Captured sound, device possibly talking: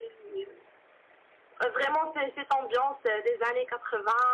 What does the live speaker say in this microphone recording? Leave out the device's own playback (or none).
none